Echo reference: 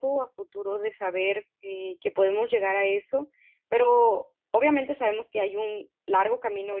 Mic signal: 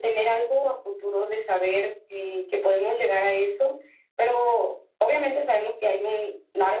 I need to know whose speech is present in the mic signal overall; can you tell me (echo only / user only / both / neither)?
echo only